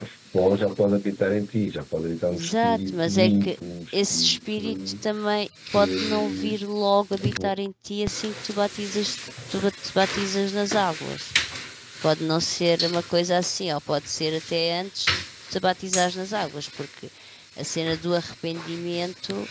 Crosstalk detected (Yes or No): Yes